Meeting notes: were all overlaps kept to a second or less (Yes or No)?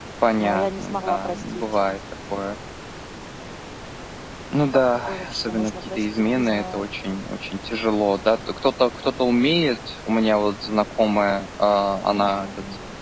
No